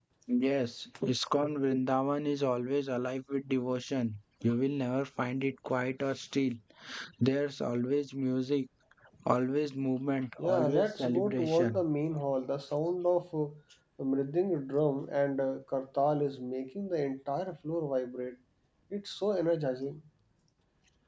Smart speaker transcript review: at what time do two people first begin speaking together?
10.4 s

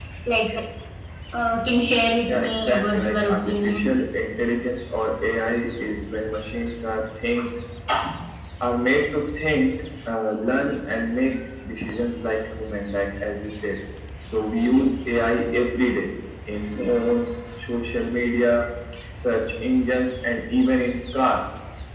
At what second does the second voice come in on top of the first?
2.3 s

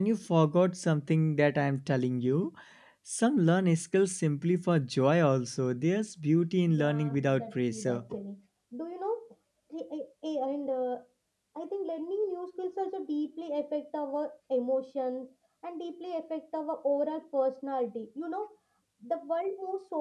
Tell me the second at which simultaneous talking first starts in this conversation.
6.7 s

